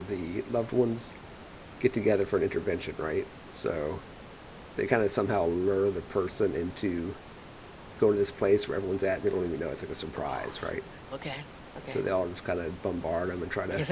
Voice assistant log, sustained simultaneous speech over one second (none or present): none